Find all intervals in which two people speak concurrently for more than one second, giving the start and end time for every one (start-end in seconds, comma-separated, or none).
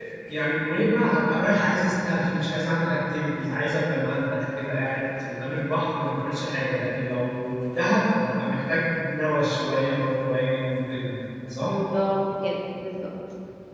none